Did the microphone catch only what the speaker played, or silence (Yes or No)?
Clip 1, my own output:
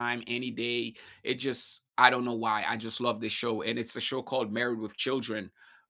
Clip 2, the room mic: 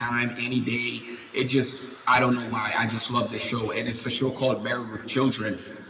Yes